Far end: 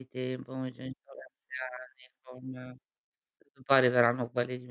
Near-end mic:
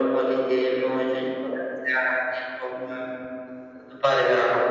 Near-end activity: none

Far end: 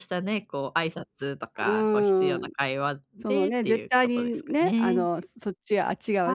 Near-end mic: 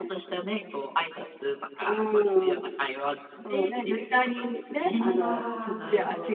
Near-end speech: present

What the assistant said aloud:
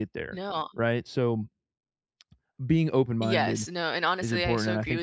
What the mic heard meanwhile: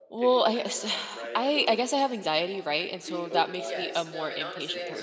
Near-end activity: present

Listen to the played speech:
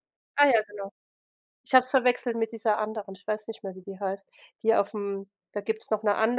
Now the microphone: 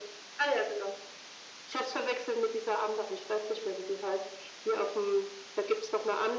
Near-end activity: none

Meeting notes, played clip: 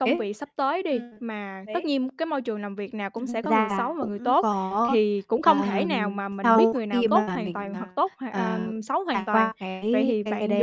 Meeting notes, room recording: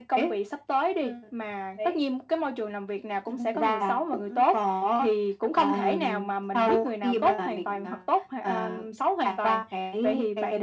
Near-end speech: none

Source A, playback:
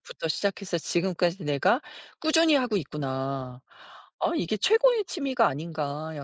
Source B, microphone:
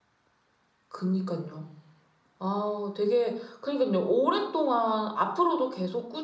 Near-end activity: present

